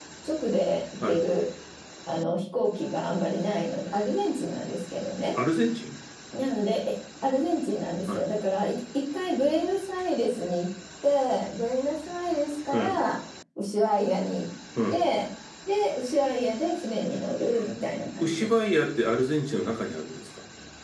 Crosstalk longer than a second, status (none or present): none